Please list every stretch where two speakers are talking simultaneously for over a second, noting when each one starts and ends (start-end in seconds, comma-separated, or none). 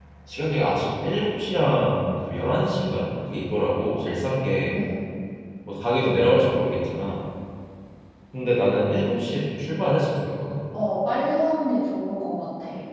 none